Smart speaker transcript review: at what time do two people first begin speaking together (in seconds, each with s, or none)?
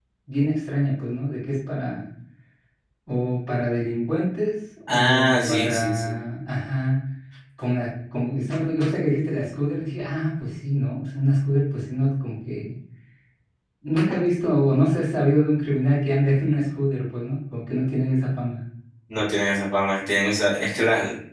4.9 s